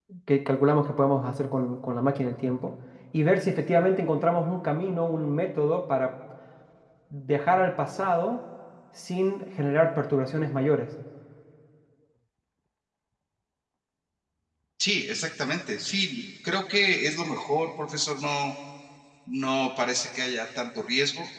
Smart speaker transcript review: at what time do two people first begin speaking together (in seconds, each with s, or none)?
none